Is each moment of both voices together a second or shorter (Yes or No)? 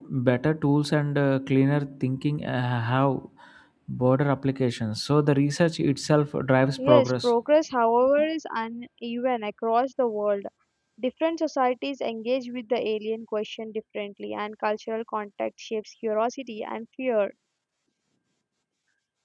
Yes